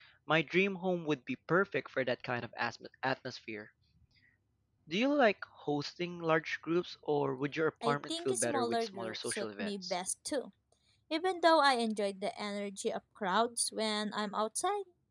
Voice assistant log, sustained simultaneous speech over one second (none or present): present